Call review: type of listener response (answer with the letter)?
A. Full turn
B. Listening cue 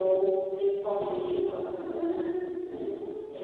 A